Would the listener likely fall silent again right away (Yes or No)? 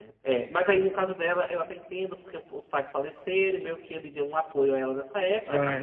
Yes